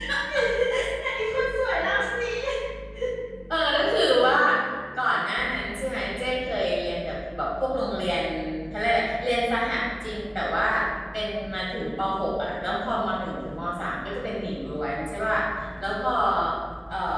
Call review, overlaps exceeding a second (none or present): none